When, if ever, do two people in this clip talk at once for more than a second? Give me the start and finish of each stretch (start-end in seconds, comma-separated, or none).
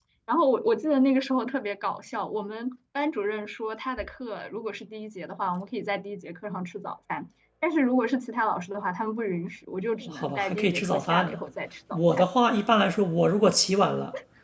10.1-11.4